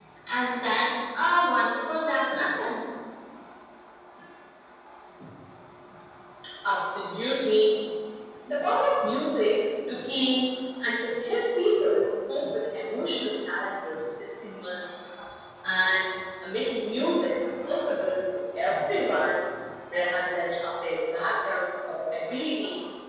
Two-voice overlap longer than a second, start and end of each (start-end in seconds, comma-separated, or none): none